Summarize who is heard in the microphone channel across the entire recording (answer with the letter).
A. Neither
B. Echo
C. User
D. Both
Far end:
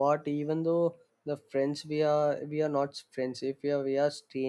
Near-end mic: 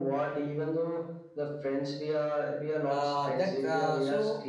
D